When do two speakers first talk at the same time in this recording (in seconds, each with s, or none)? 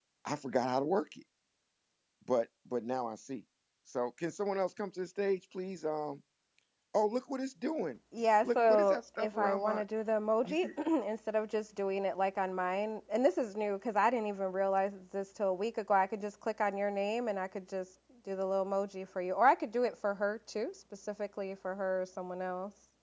8.4 s